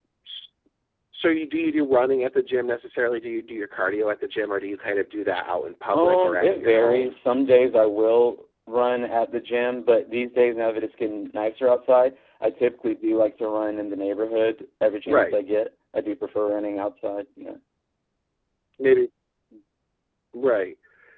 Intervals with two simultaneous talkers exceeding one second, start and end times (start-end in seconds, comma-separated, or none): 5.9-7.1